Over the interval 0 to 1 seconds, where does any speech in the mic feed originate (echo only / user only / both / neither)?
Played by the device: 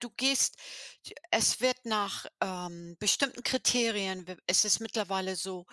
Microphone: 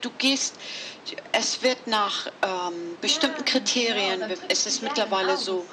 echo only